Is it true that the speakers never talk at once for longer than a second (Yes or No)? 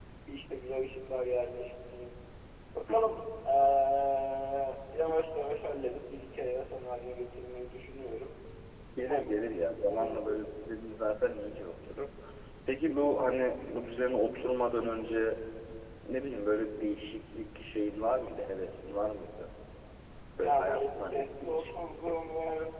No